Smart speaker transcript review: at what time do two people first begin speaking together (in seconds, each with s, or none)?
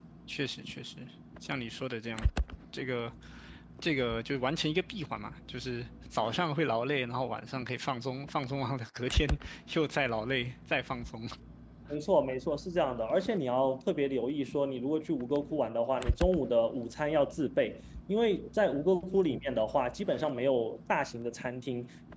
none